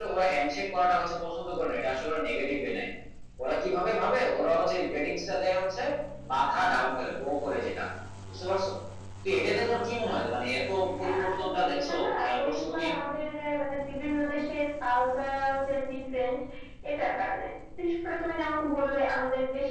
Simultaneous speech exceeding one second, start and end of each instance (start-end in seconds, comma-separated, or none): 11.0-12.8